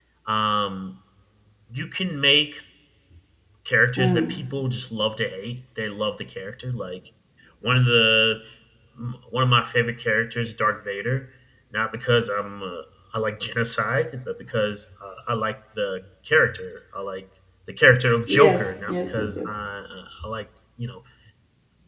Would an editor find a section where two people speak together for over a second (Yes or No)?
Yes